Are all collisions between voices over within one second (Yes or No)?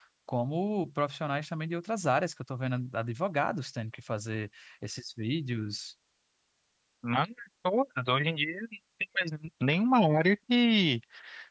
Yes